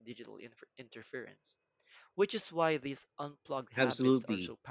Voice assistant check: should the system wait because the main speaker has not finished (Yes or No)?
No